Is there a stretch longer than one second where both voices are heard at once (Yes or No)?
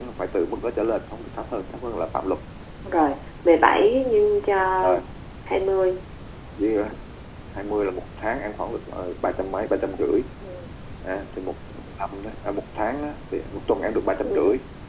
No